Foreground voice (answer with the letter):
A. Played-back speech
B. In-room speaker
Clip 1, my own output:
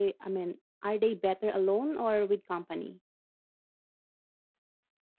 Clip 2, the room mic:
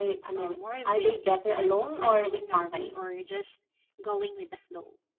A